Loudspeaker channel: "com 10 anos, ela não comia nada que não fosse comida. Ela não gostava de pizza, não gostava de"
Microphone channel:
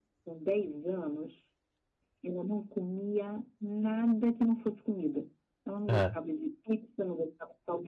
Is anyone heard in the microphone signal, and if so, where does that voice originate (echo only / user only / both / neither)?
both